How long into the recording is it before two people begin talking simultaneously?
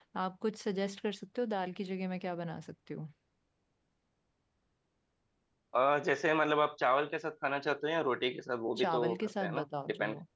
9 s

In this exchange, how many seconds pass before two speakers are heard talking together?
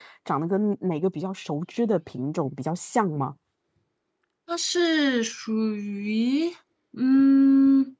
none

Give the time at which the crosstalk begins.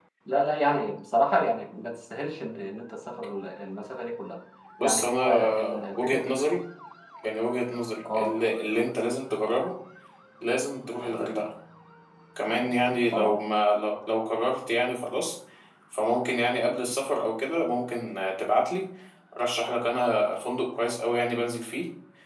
5 s

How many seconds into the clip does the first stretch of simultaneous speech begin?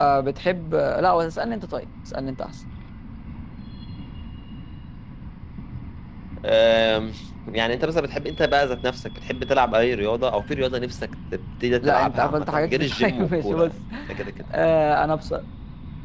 12 s

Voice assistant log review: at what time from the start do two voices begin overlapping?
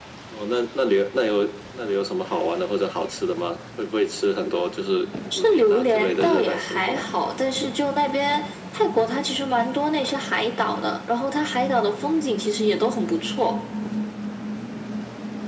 5 s

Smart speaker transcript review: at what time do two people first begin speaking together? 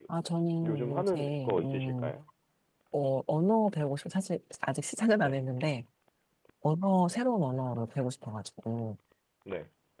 1 s

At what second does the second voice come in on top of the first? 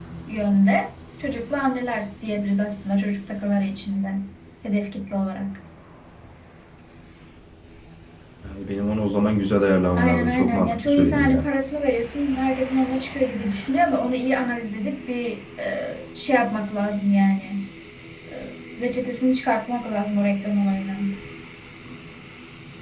10 s

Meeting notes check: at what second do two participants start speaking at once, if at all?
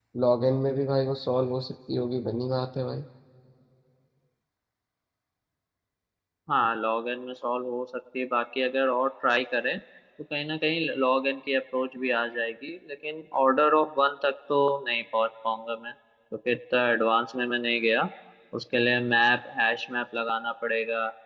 none

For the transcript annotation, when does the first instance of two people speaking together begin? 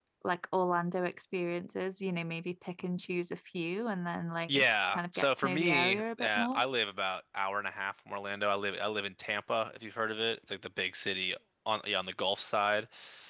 4 s

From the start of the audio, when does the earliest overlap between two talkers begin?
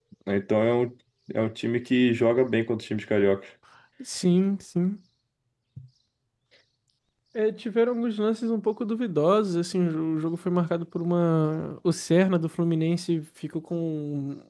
none

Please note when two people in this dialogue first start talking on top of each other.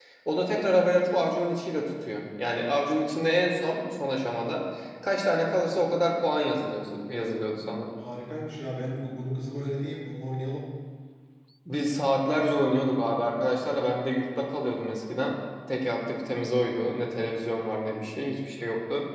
none

